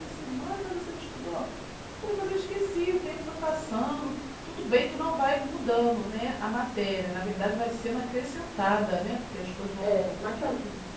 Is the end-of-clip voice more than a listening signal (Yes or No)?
Yes